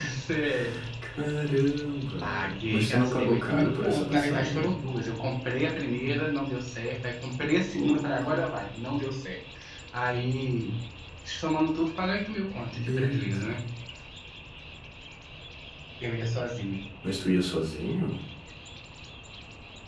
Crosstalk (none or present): present